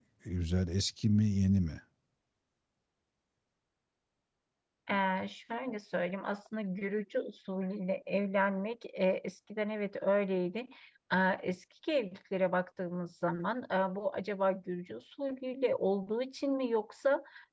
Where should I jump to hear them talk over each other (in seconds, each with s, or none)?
none